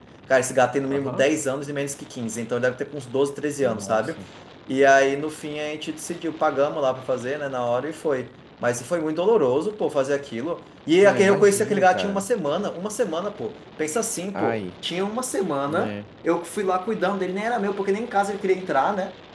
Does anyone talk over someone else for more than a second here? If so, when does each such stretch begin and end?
11.0-12.2

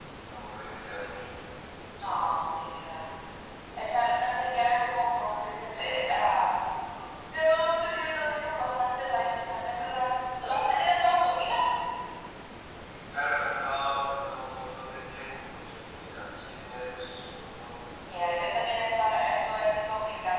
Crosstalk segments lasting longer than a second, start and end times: none

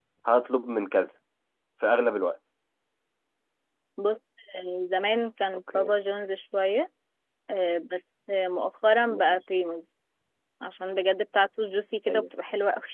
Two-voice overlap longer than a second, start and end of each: none

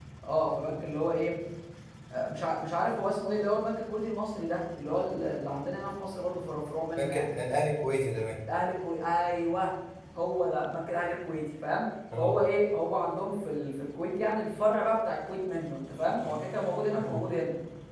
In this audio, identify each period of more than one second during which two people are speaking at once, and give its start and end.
none

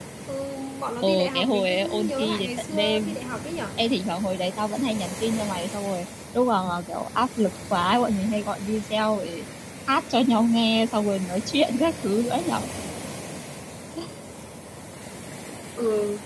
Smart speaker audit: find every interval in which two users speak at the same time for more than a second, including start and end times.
1.0-3.2

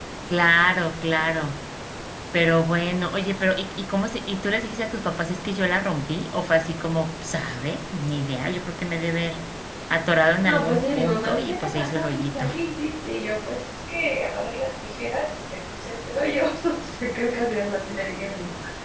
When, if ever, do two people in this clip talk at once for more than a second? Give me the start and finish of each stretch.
10.4-12.5

